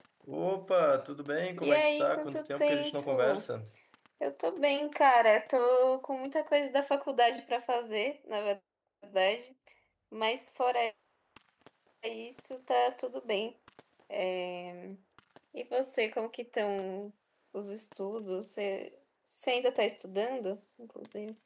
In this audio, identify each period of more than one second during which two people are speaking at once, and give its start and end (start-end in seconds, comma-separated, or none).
1.6-3.4